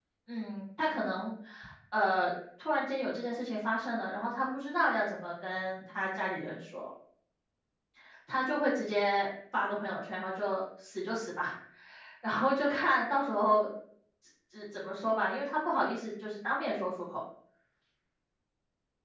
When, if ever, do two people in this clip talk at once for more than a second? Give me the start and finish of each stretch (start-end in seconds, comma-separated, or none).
none